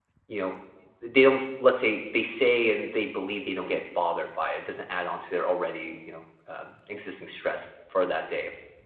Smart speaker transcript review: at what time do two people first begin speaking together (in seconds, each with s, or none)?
none